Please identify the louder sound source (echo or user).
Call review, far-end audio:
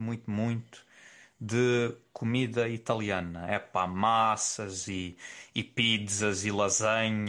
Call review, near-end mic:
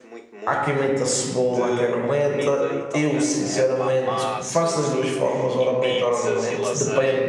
user